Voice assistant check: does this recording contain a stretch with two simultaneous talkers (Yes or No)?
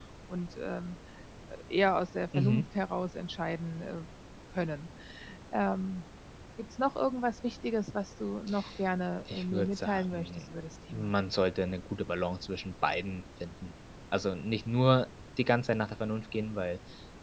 Yes